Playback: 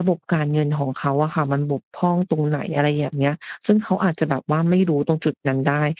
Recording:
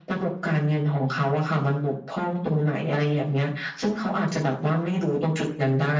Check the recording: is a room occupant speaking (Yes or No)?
No